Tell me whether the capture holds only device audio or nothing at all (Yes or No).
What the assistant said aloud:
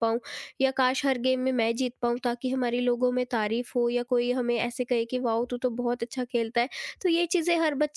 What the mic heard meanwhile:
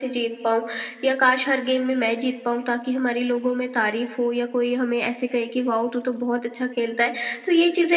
Yes